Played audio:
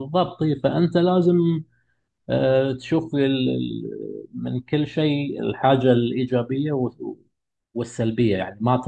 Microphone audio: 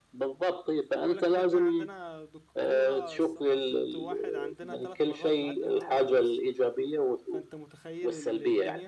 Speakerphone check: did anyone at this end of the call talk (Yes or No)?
Yes